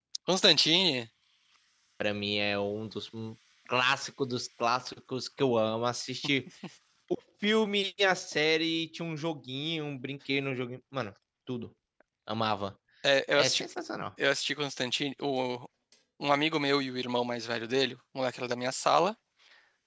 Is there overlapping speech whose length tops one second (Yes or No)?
No